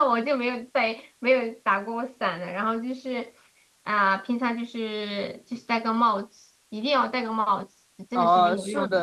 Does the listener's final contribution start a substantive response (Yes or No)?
Yes